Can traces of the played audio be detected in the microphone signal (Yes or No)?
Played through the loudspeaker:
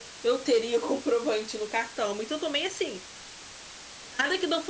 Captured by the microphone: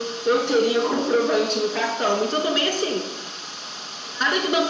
Yes